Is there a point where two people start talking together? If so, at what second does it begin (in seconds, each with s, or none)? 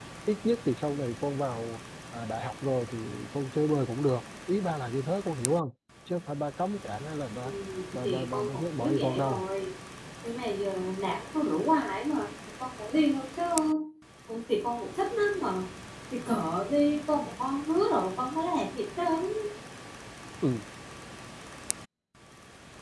8.0 s